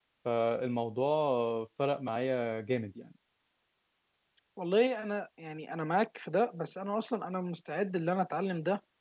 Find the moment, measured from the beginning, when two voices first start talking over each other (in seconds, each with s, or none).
none